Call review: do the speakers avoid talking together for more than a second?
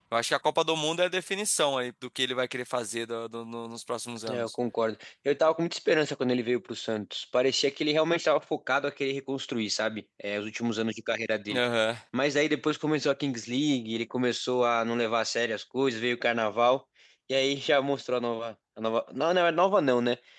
Yes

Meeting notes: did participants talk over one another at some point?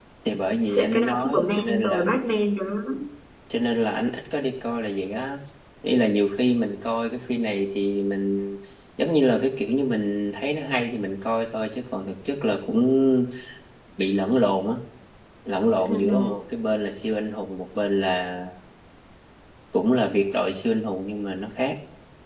Yes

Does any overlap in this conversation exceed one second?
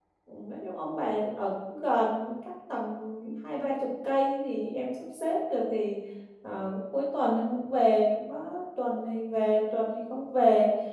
No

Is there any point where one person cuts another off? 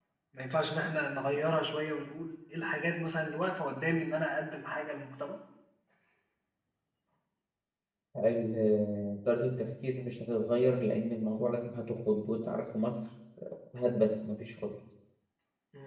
No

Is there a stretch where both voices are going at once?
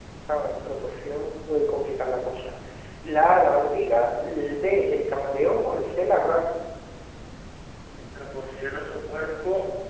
No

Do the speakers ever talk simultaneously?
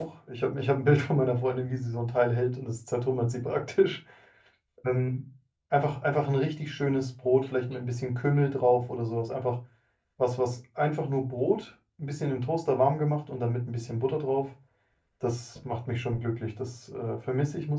No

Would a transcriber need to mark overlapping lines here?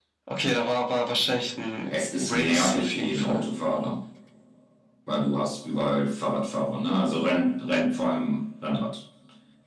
Yes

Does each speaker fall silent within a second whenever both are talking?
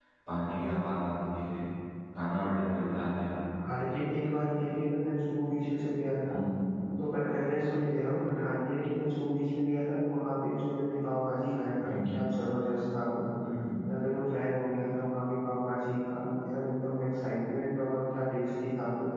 Yes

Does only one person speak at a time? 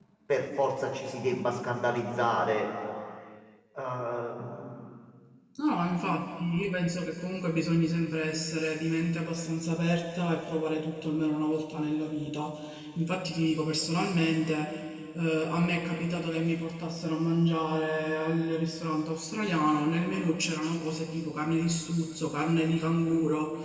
Yes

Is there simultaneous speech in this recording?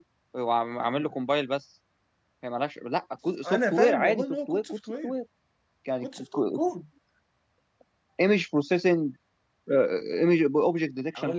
Yes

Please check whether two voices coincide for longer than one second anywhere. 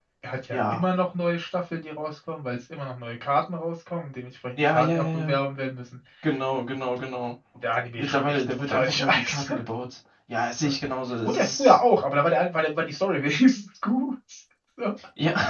Yes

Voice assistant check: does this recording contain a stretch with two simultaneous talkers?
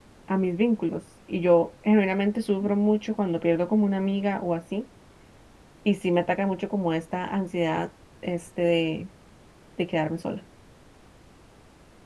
No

